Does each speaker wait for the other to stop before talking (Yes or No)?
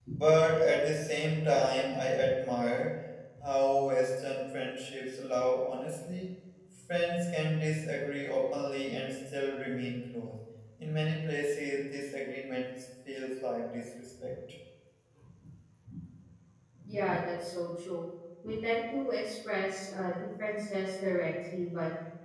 Yes